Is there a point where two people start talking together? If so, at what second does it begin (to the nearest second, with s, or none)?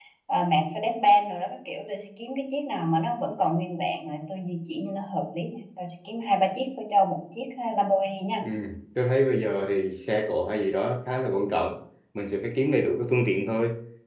none